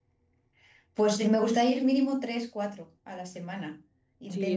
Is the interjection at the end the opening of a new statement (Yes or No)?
Yes